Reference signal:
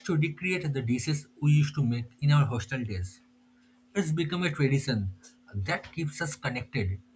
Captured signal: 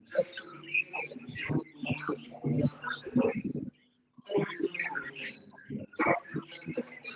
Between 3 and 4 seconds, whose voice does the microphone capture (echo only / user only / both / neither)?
echo only